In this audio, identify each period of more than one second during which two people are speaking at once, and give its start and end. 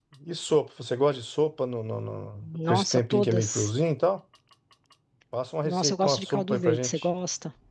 2.4-3.7, 5.6-7.1

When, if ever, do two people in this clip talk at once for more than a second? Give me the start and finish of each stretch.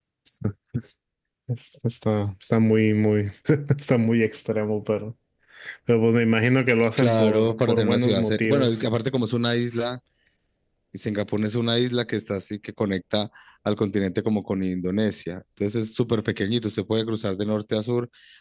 7.0-8.8

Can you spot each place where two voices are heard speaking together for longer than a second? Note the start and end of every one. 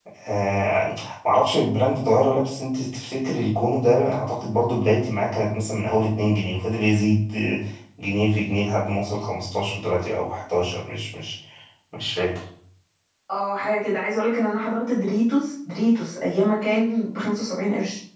none

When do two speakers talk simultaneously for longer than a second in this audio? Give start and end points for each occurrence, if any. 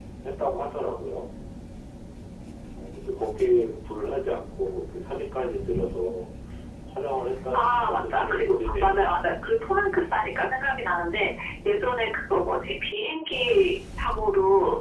7.5-9.3

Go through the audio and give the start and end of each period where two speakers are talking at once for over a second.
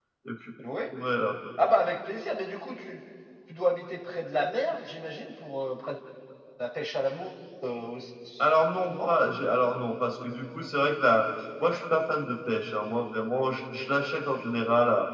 none

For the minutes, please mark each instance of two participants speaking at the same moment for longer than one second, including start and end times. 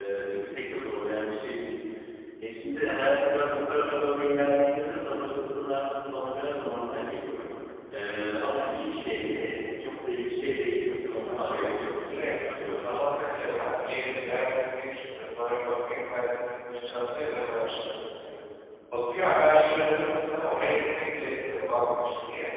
12.1-13.9

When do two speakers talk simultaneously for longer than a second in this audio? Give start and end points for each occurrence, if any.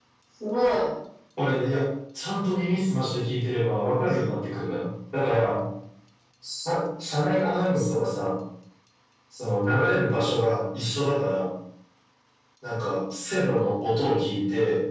none

